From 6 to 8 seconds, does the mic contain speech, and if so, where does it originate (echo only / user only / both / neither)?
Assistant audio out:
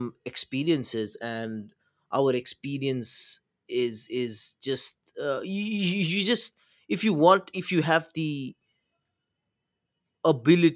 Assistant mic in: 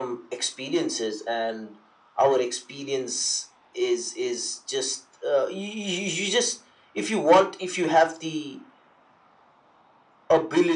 echo only